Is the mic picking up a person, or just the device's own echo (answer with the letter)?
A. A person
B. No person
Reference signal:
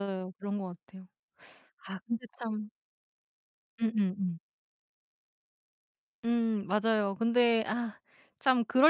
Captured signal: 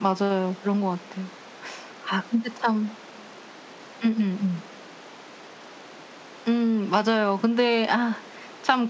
B